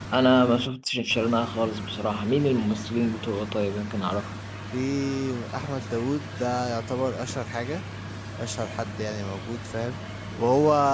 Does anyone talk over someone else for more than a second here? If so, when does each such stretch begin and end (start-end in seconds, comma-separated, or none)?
none